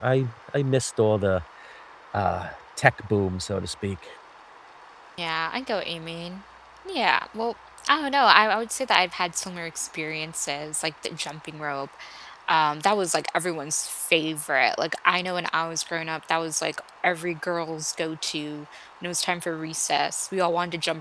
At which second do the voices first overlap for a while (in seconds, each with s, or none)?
none